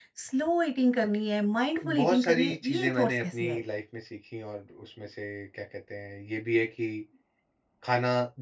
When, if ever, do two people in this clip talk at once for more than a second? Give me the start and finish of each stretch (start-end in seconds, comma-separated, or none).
2.0-3.6